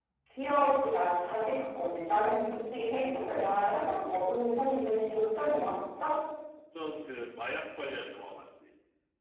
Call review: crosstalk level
none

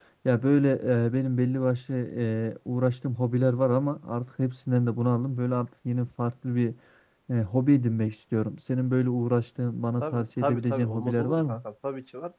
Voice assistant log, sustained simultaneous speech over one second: present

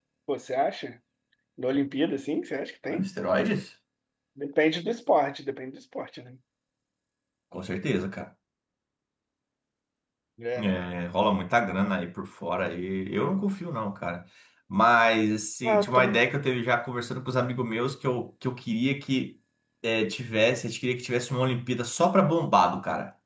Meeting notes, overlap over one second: none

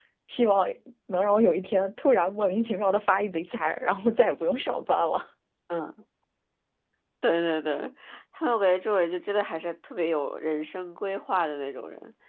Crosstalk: none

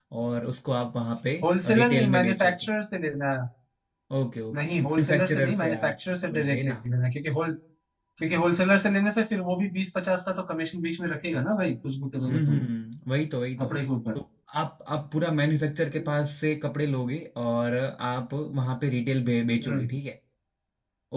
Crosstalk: present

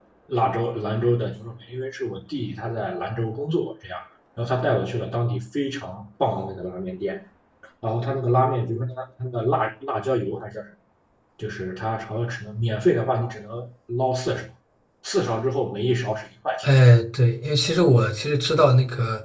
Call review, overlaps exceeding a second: none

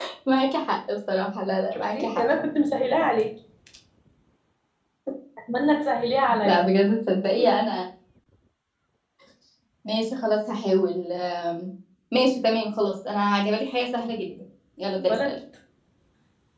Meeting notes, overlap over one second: none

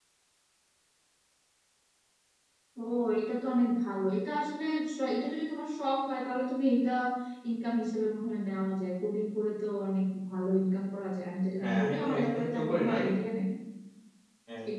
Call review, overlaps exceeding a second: present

